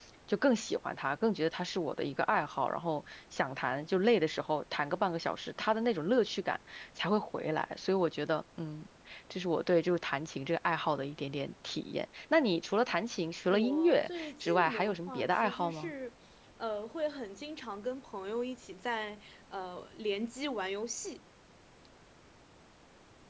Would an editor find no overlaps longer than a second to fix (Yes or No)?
No